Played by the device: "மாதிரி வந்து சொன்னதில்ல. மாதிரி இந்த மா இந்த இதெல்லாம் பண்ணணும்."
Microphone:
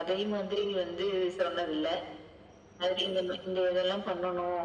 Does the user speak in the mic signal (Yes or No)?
No